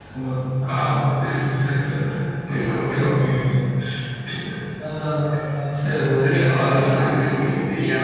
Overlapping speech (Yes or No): Yes